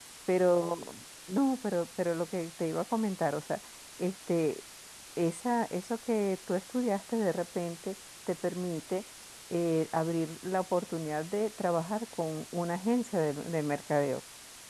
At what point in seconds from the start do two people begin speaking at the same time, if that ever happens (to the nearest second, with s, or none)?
none